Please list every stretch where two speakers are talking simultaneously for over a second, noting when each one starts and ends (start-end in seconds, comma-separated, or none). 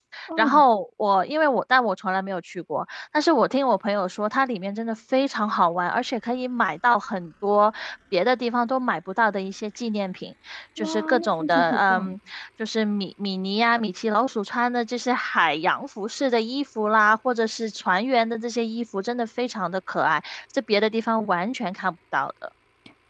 10.8-12.2